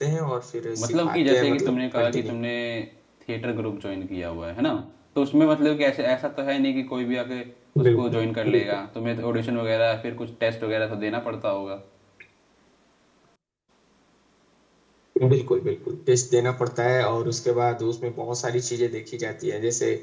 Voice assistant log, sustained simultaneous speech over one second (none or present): present